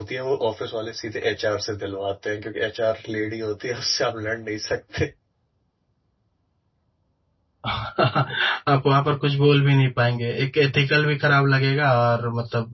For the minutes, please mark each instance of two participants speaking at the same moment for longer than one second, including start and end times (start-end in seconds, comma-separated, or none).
none